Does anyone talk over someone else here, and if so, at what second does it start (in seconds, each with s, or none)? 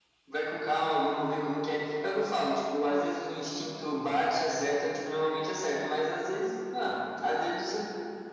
none